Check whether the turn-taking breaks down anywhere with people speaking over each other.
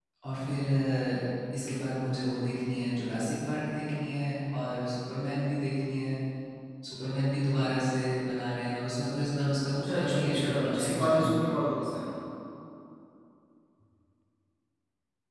Yes, from 9.8 s

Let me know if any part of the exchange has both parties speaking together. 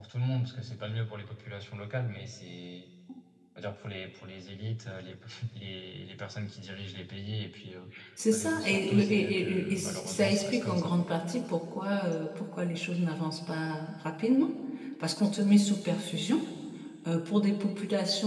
Yes, from 8.3 s

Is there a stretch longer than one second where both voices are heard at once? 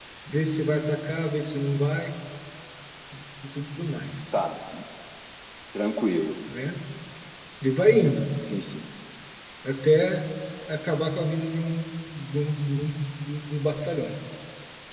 No

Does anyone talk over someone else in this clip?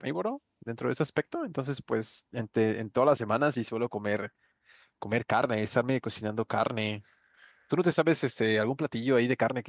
No

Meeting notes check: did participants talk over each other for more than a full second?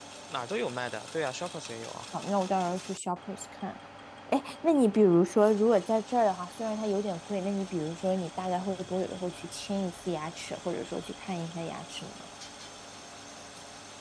No

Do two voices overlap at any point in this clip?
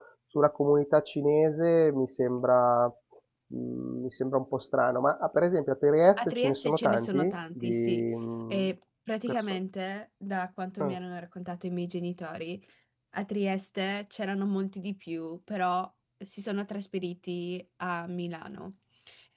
Yes, from 6.2 s

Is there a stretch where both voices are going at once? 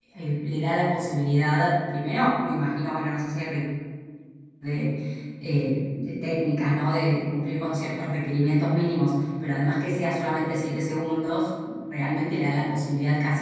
No

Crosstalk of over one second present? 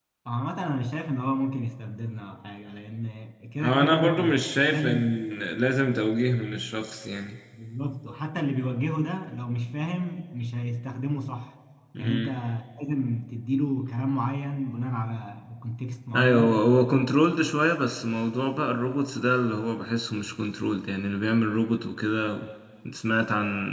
Yes, from 3.6 s

